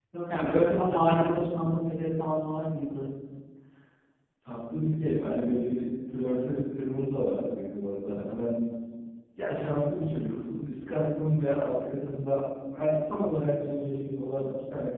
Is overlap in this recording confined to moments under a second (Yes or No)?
Yes